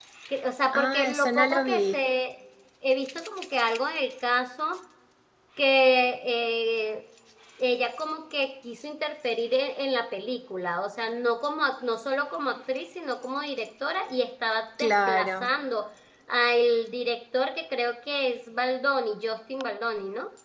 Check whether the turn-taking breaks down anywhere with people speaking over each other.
Yes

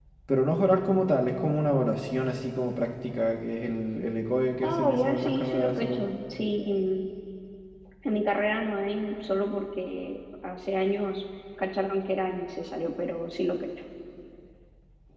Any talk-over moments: Yes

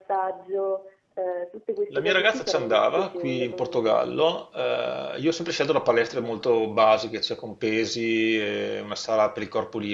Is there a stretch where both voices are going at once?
Yes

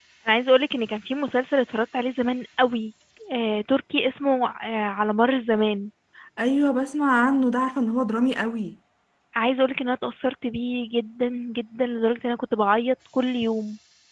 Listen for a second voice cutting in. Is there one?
No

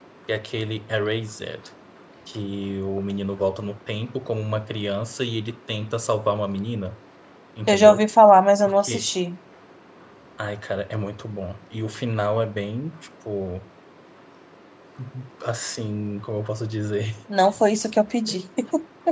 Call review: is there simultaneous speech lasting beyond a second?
No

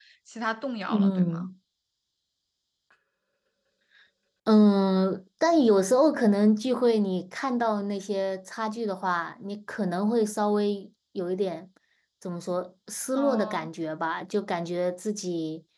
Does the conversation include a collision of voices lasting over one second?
No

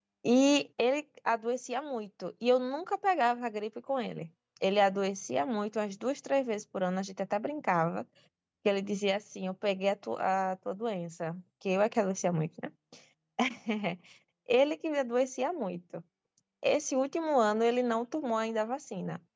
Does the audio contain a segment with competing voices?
No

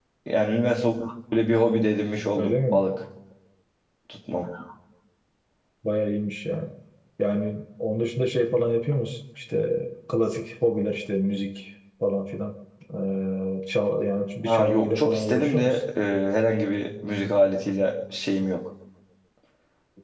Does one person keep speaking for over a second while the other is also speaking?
Yes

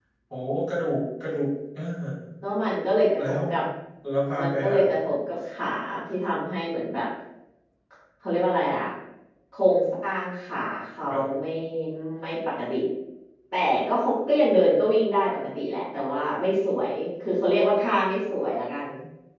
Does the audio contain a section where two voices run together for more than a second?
No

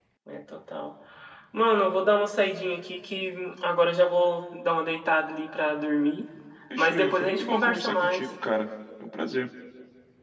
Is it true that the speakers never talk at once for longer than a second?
No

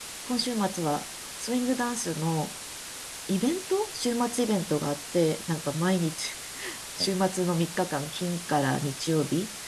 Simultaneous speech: No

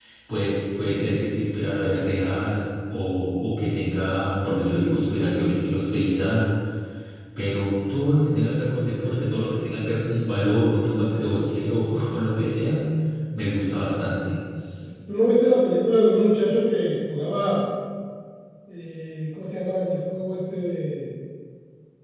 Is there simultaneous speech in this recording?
No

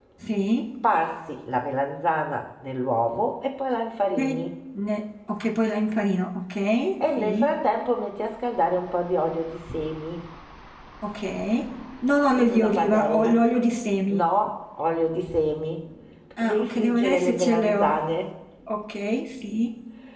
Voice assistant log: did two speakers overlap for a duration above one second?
Yes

